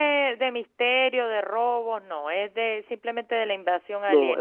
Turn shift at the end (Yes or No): Yes